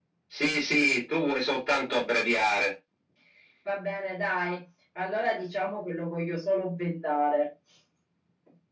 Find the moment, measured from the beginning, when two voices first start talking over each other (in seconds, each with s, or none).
none